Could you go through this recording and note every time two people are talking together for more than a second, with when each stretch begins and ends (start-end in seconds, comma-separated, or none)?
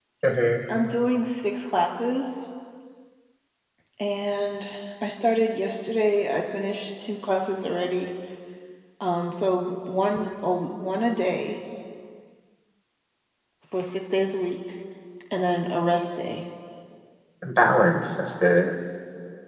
none